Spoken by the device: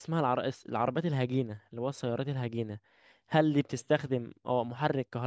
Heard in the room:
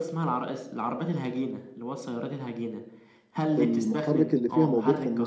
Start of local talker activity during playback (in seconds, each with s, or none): 3.5 s